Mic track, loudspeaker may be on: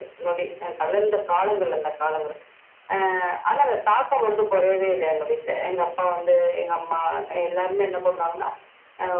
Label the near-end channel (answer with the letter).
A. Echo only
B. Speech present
A